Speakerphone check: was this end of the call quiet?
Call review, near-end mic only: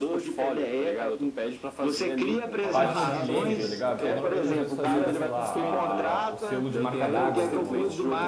No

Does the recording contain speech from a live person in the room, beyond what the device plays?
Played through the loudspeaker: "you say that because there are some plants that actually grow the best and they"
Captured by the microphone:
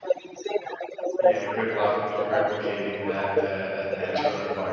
Yes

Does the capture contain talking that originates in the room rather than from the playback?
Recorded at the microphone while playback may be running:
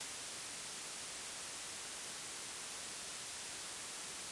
No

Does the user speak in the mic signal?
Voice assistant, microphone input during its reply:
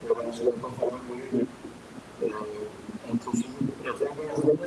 No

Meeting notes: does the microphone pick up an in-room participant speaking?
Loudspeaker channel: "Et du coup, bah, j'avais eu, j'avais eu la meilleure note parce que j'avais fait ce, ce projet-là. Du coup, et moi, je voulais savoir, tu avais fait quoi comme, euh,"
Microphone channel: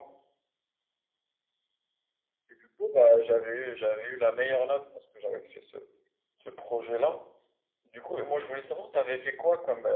No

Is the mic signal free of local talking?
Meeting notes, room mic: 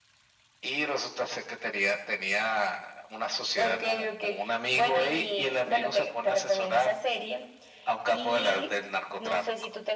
Yes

